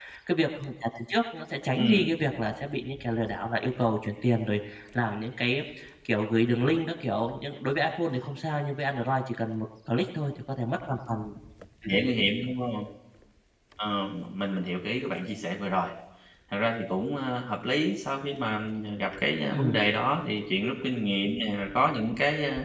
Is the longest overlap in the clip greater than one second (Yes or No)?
No